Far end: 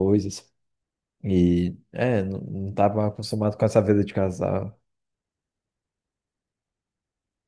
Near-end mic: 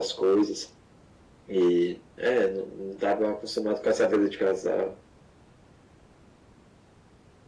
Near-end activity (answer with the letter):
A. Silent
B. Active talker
A